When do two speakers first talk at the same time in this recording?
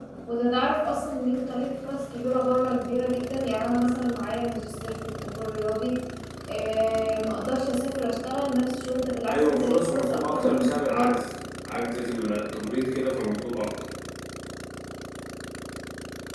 9 s

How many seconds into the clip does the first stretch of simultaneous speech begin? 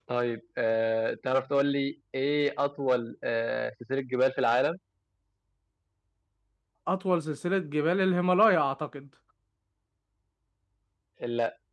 none

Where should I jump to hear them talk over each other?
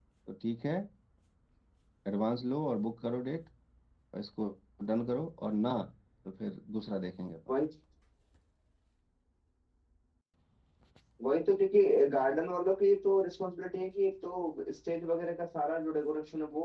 none

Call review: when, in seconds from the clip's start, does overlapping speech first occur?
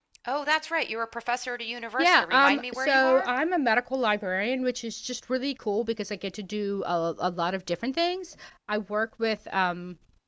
2 s

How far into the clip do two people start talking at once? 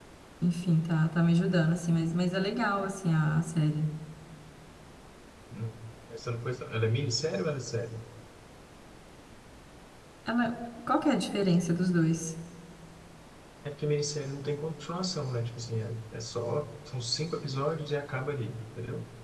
none

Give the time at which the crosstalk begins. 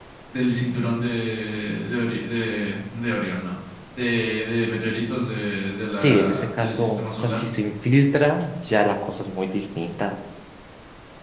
6 s

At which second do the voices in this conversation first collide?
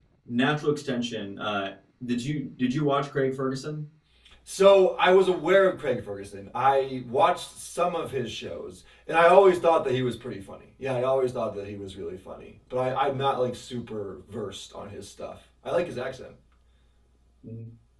none

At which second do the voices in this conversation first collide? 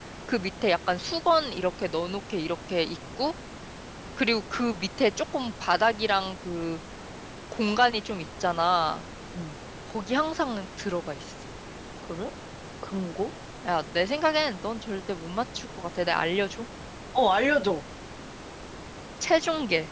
none

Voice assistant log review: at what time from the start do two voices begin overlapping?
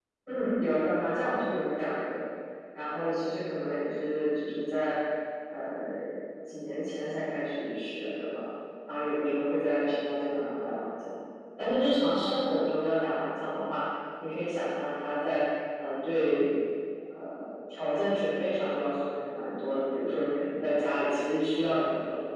none

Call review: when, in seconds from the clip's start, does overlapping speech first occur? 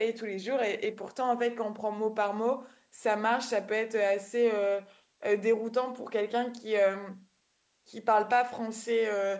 none

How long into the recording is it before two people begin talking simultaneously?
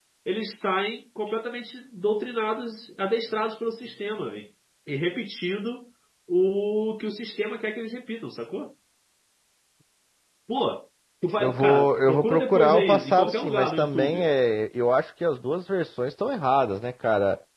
11 s

